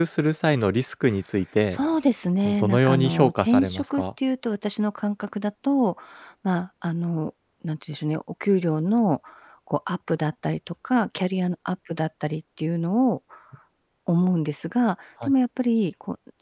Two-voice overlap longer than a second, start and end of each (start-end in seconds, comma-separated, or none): 2.4-4.0